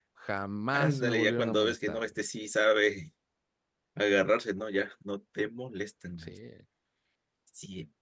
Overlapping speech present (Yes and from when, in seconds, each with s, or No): Yes, from 0.7 s